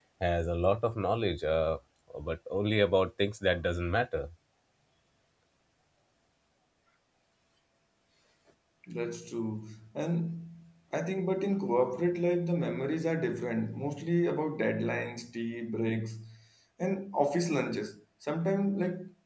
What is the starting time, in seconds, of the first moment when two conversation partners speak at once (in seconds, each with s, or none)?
none